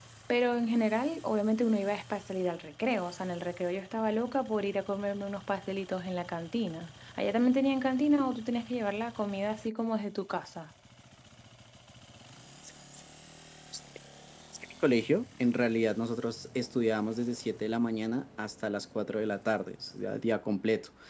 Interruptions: none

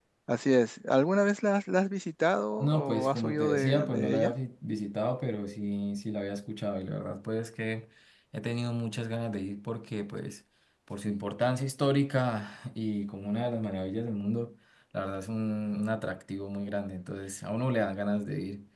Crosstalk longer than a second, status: present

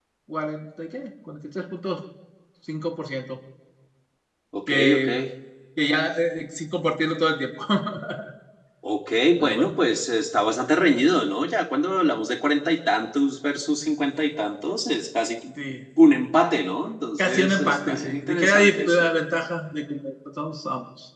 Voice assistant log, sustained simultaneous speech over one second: present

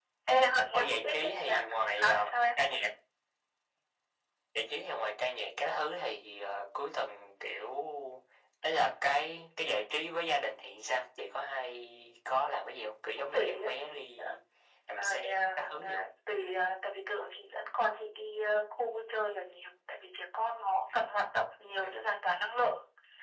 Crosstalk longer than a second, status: present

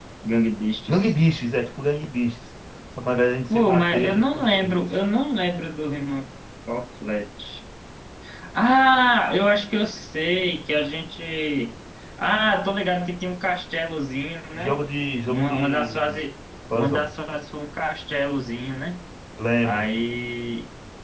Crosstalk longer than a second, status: present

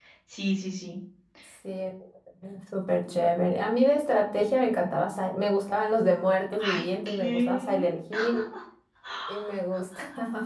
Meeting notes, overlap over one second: present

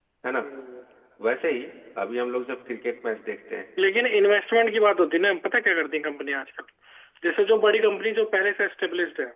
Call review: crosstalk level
none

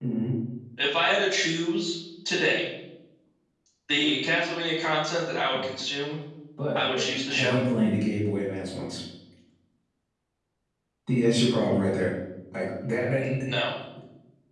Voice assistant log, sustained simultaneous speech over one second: none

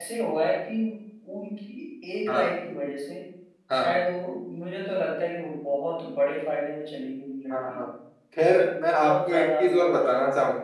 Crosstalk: present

